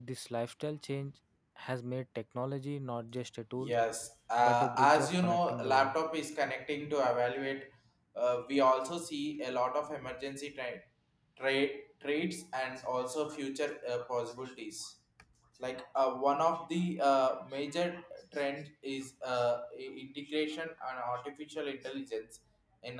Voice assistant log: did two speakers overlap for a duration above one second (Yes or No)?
Yes